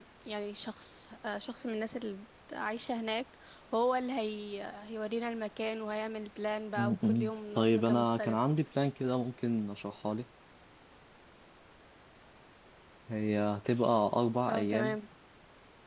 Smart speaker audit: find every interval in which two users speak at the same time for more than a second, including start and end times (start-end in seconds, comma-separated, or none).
6.8-8.4